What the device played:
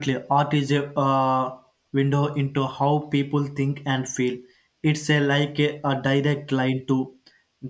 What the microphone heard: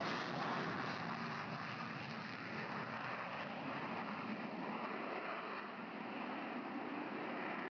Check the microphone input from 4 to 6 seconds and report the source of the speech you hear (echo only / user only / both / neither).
neither